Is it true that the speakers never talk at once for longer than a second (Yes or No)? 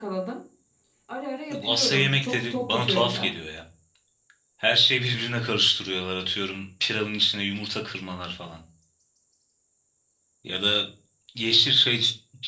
No